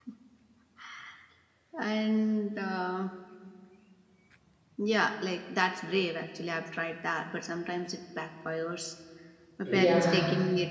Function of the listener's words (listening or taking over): listening